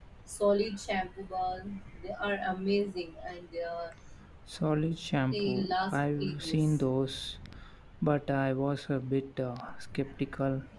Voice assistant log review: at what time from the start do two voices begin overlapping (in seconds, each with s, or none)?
5.3 s